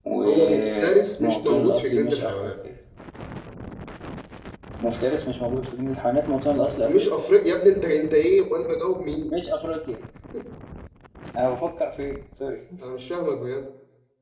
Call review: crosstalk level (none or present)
present